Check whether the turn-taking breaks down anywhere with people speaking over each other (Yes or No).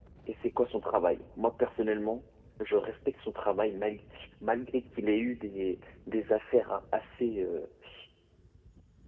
No